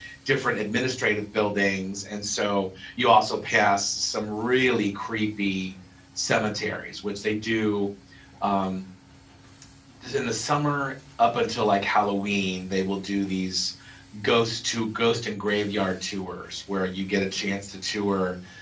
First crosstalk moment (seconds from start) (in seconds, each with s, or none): none